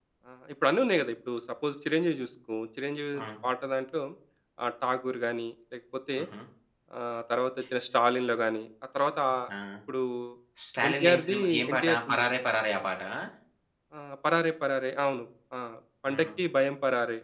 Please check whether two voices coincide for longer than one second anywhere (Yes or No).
Yes